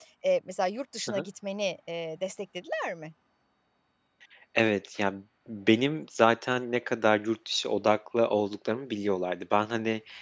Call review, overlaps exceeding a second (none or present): none